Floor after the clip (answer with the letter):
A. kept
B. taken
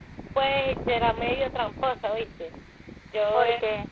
A